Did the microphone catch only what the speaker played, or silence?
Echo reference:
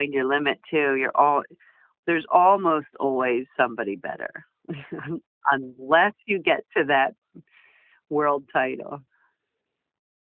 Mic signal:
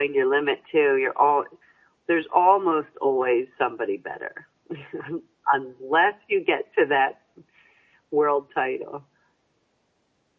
Yes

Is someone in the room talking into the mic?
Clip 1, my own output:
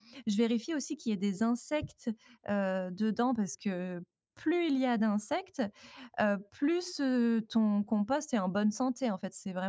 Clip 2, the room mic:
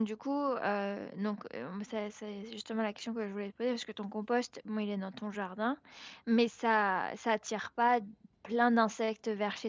Yes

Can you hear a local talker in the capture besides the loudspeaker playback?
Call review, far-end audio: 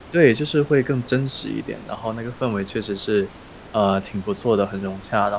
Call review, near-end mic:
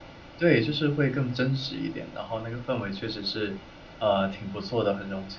No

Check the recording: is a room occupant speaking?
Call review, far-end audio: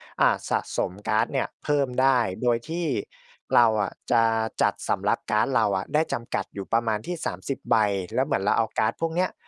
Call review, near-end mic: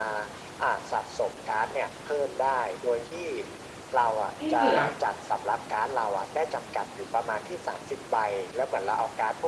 Yes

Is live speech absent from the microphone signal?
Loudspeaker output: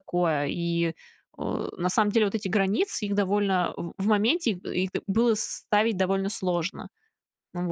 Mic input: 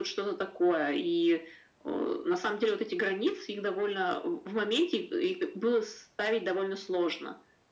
Yes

